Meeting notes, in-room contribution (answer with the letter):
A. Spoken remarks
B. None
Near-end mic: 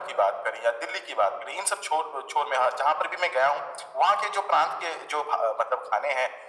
B